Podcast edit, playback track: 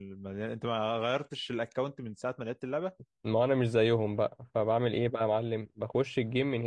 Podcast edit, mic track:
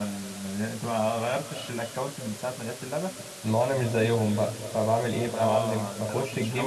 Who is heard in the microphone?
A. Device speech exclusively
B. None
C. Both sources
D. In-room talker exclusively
C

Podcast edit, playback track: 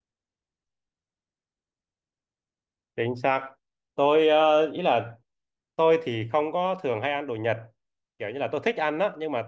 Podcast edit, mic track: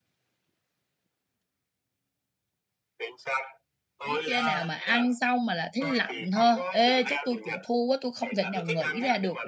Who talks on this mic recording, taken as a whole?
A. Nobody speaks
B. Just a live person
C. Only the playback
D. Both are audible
D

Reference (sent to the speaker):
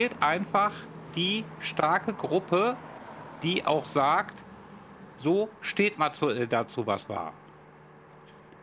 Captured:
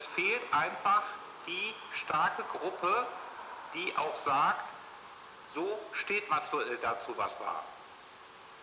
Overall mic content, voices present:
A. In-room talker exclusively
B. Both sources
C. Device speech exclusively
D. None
C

